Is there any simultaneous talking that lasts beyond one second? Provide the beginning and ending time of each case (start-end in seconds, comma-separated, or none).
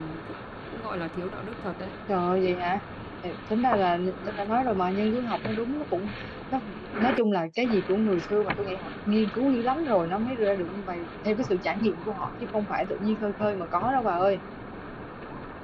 none